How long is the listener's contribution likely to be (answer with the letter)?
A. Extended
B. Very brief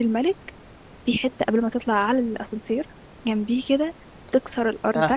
B